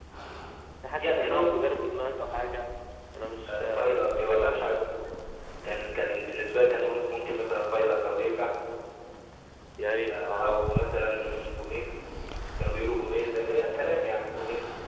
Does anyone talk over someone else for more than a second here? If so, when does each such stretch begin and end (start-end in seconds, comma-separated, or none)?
3.5-5.0